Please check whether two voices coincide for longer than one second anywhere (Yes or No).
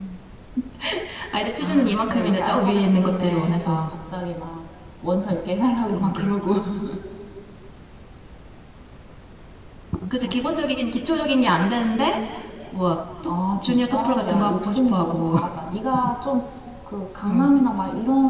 Yes